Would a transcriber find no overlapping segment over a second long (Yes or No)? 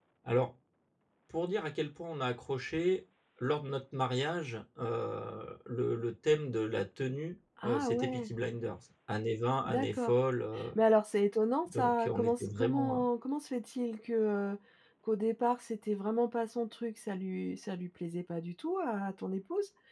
No